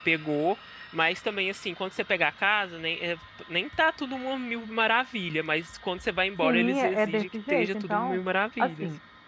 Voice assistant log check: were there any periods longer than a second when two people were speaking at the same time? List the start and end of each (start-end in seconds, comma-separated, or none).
6.4-8.2